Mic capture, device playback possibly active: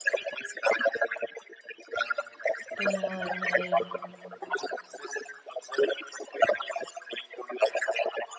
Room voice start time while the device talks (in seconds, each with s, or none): 2.7 s